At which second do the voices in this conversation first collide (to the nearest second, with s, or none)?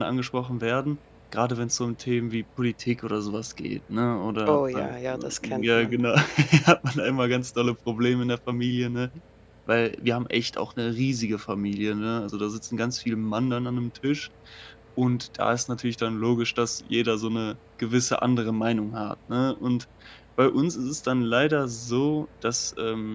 4 s